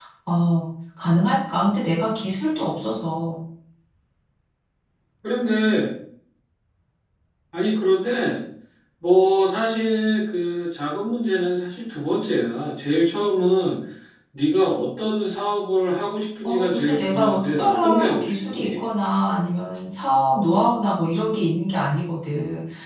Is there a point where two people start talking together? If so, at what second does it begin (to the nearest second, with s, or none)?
16 s